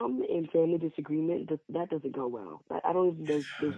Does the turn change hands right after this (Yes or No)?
No